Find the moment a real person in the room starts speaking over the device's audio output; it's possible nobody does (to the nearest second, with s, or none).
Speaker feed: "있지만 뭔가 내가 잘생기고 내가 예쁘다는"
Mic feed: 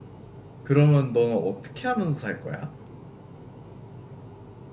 1 s